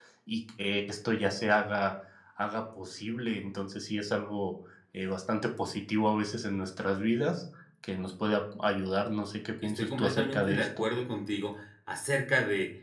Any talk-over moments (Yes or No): Yes